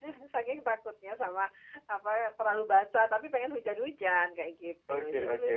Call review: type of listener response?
taking over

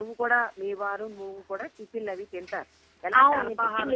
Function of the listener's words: taking over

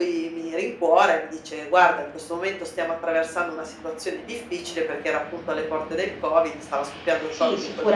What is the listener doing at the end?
taking over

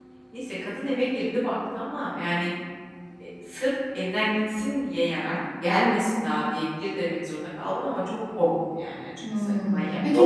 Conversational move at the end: taking over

